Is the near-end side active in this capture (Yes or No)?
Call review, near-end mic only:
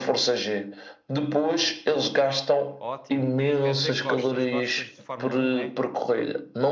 Yes